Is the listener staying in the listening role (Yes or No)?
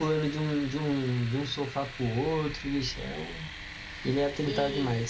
No